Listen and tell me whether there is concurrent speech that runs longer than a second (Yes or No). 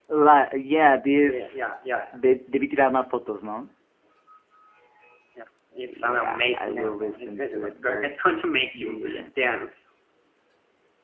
Yes